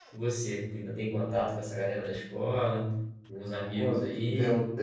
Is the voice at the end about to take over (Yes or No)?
Yes